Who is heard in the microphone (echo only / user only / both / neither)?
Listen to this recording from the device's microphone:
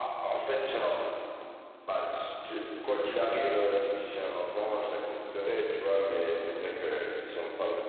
echo only